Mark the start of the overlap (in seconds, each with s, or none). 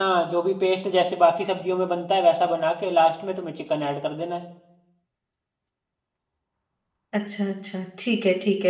none